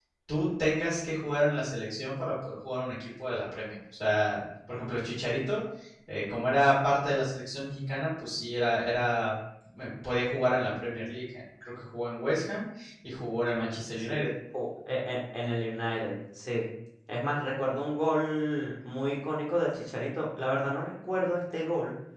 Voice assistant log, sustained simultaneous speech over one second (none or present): none